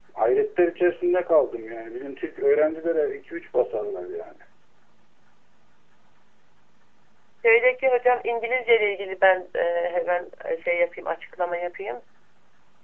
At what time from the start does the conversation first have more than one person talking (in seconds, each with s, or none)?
none